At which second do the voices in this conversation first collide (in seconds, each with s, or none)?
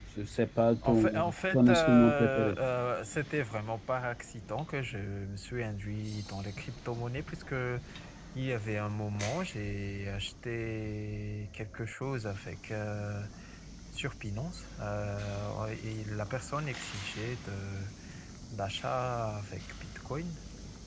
0.8 s